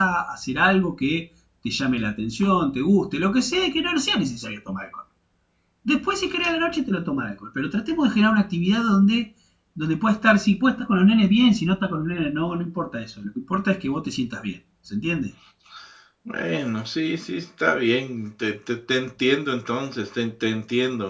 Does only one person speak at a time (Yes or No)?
Yes